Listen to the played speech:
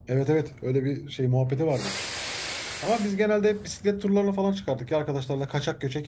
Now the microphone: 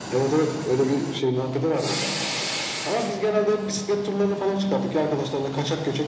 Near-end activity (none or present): none